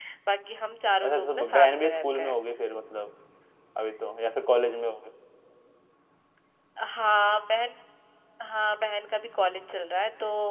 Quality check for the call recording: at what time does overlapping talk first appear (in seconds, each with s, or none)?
1.0 s